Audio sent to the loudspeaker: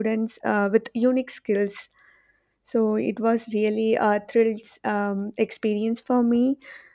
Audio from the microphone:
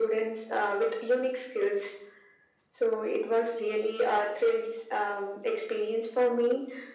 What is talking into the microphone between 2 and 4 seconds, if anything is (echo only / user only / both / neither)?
echo only